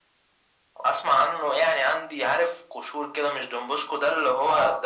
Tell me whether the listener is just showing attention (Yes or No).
Yes